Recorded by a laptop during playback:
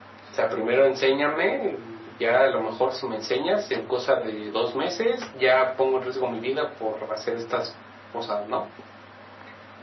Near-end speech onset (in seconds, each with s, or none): none